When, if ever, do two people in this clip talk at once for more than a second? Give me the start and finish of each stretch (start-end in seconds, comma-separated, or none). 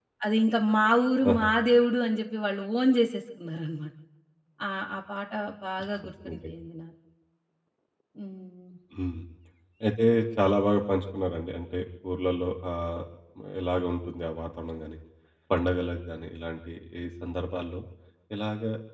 none